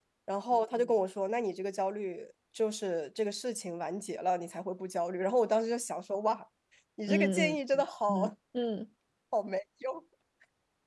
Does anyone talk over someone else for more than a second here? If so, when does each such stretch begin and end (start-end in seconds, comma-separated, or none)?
7.1-8.3